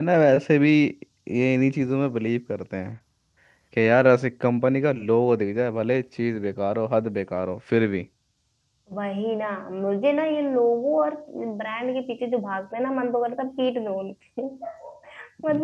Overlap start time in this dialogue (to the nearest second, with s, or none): none